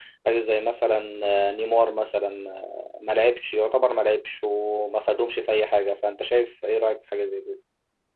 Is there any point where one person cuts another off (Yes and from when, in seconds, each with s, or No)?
No